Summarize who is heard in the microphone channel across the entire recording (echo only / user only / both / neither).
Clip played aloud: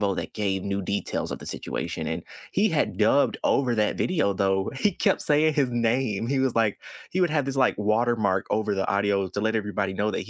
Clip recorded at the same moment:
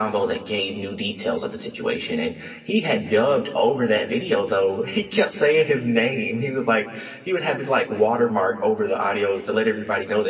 echo only